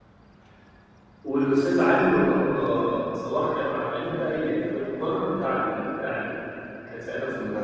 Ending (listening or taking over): listening